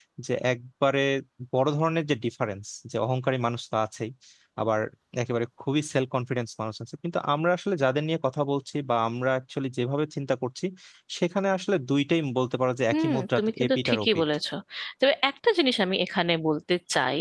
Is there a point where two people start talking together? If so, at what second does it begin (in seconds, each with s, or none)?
12.9 s